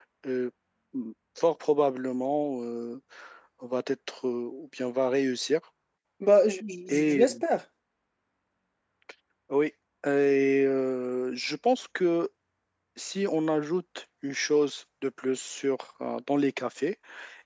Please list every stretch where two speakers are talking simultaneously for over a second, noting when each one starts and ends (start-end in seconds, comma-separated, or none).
none